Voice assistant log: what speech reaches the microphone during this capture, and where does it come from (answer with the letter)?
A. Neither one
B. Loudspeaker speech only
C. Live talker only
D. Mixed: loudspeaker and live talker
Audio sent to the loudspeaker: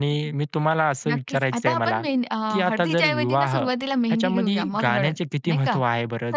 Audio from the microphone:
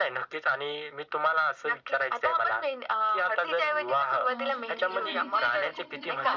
D